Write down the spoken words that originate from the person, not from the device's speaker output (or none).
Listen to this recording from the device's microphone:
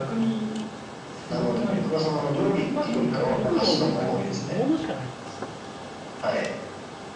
僕が思いつく和食煮物しかないですよ。